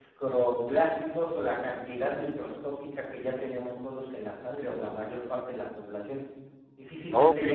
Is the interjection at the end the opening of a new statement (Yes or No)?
Yes